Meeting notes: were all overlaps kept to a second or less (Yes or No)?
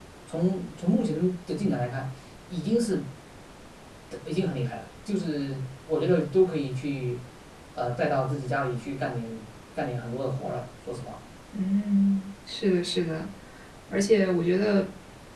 Yes